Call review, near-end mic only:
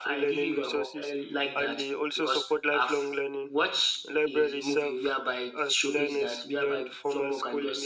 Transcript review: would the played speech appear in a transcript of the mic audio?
Yes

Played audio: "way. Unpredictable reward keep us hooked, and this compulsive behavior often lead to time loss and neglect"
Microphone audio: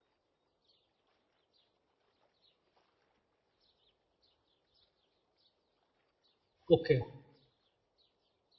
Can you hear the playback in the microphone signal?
No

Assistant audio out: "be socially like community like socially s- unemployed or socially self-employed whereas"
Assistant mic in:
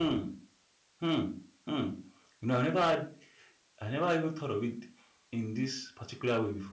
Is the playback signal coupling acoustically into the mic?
No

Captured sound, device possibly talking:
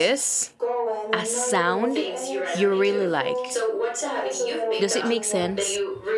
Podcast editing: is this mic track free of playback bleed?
No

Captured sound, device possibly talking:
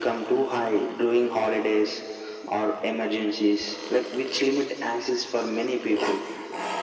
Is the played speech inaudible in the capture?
No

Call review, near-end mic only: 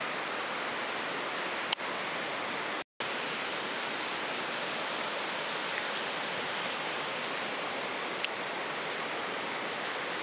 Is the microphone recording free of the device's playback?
Yes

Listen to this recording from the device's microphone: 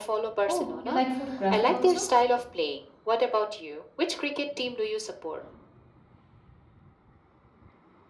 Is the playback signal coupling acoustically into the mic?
Yes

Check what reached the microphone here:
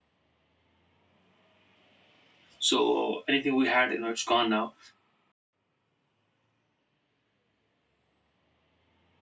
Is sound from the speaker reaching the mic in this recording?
No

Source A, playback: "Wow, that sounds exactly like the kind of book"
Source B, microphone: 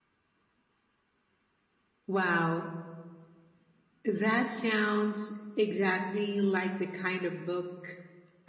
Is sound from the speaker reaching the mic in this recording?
Yes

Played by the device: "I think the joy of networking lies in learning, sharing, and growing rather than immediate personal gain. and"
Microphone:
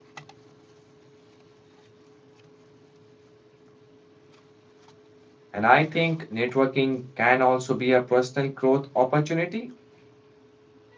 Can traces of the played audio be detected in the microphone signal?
No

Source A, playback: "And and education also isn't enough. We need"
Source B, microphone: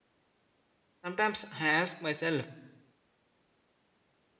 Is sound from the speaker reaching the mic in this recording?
No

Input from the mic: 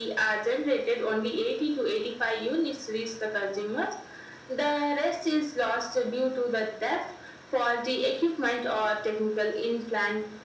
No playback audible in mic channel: No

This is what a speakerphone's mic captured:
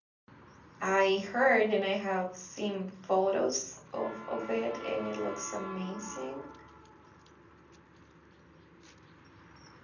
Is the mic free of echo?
Yes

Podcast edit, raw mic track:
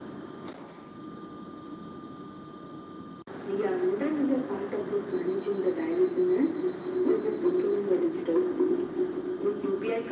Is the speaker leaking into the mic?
Yes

